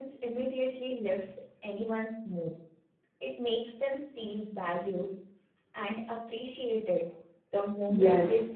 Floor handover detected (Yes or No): Yes